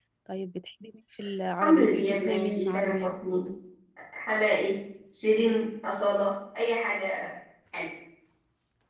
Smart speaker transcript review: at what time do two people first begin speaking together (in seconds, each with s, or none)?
1.6 s